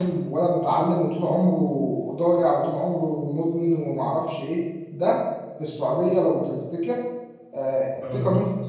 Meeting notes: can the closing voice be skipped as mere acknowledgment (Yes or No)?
Yes